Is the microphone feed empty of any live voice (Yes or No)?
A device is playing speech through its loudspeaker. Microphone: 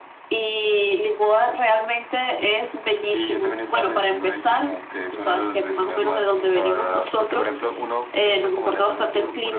Yes